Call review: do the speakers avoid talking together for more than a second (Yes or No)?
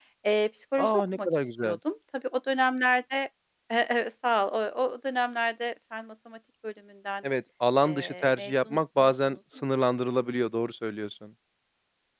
No